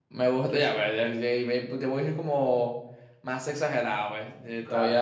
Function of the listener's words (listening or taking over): listening